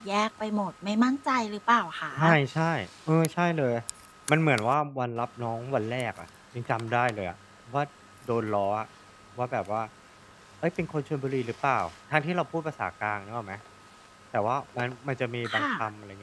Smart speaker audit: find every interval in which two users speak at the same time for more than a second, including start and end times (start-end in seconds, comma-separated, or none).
none